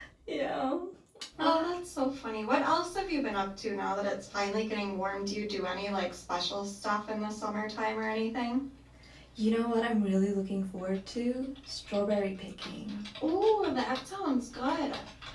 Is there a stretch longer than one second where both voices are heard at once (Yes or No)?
No